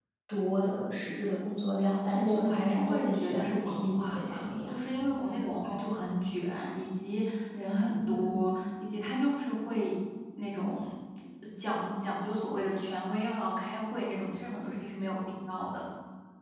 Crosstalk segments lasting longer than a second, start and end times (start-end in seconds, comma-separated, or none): 2.1-4.8